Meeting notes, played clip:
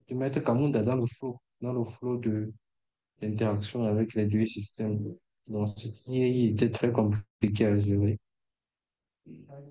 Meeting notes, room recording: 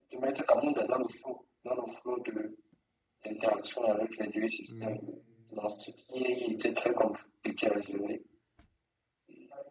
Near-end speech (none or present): present